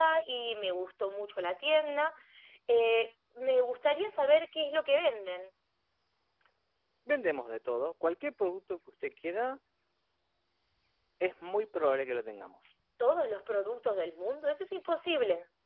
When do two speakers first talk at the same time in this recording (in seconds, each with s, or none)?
none